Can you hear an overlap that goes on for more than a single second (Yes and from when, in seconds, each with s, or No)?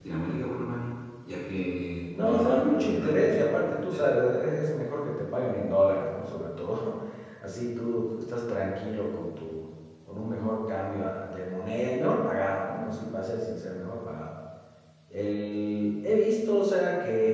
Yes, from 2.1 s